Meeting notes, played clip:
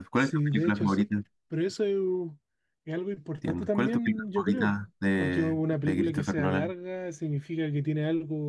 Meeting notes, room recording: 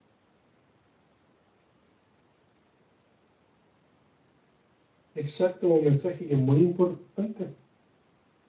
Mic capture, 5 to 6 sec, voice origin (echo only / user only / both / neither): user only